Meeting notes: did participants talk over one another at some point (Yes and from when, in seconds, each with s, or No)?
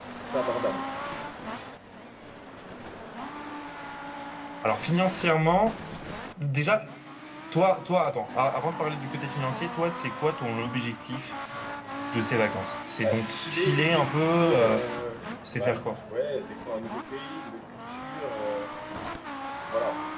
Yes, from 13.0 s